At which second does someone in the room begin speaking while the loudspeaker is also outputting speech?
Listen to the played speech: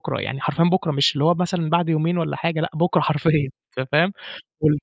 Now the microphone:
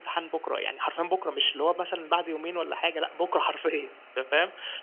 none

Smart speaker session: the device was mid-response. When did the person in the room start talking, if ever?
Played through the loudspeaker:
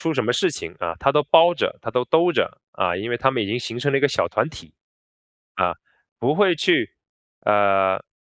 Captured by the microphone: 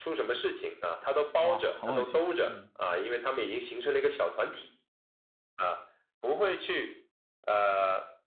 1.4 s

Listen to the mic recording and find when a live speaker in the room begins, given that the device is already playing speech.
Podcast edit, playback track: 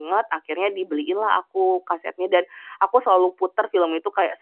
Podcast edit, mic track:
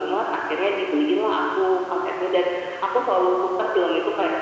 none

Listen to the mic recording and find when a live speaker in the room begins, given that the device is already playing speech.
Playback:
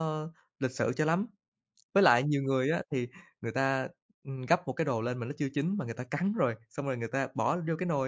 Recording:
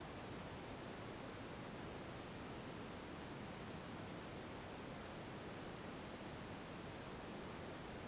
none

